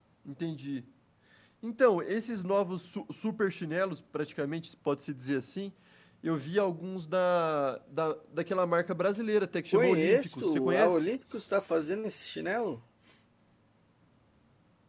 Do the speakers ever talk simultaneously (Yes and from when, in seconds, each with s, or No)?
Yes, from 9.7 s